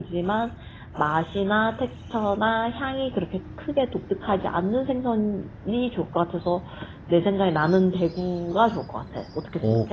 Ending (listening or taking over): taking over